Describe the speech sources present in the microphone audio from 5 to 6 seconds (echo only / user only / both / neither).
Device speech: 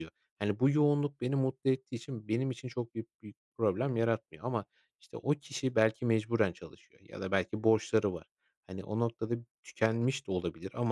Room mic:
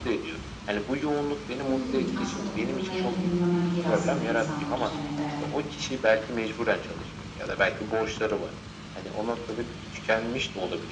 both